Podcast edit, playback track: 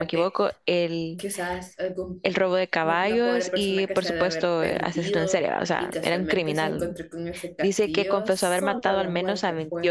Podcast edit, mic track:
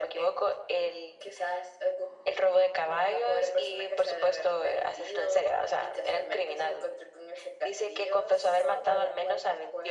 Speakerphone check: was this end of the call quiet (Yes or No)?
Yes